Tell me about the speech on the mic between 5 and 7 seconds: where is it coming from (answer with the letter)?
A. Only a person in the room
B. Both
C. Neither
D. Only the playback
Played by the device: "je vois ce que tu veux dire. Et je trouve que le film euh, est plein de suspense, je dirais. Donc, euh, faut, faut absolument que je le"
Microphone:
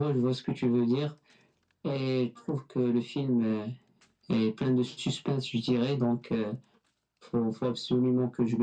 D